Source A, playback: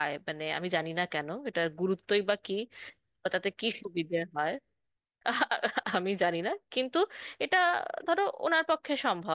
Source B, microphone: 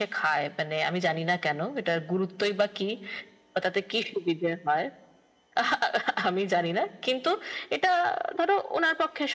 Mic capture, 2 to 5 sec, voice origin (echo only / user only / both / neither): echo only